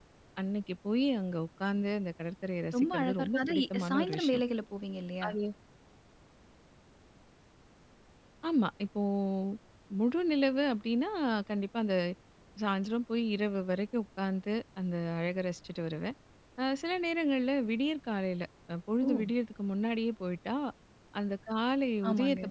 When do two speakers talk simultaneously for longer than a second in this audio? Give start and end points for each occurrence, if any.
2.8-4.4

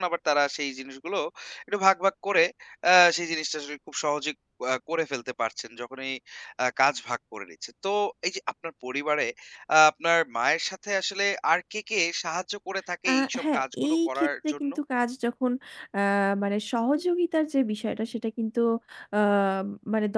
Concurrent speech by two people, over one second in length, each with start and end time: 13.1-14.7

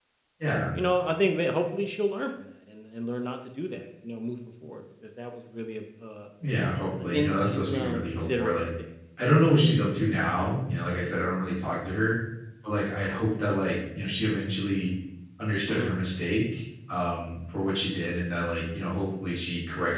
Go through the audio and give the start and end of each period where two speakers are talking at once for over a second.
7.1-8.7

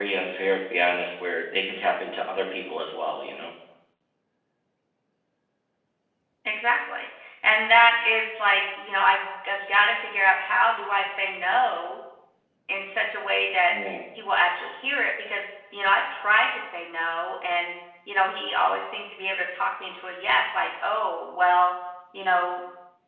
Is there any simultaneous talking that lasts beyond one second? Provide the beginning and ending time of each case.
none

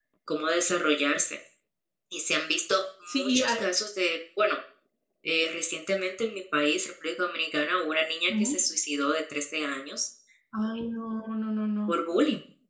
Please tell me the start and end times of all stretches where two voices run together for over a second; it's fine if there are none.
none

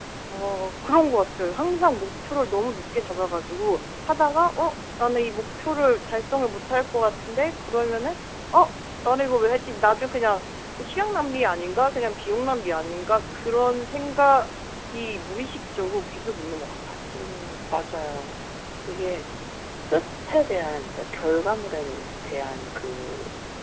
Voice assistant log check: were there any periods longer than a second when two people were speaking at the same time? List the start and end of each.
none

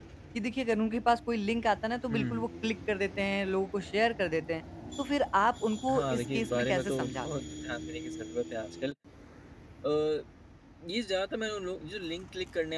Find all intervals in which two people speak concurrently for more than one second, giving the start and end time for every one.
5.9-7.3

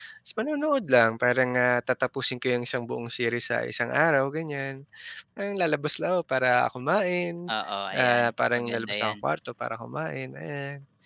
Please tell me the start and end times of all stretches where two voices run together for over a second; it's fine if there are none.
8.0-9.2

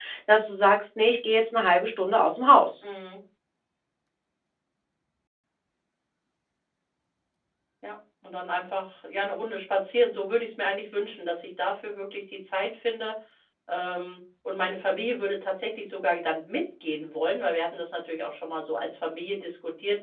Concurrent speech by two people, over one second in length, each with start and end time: none

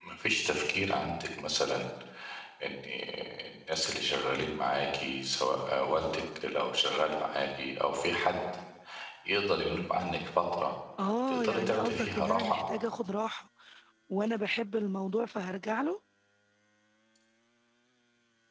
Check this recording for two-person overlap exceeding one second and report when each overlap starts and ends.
11.3-12.6

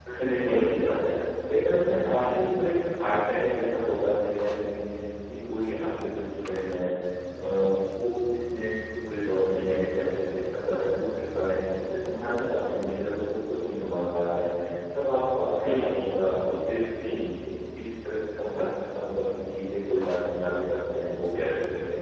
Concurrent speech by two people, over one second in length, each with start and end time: none

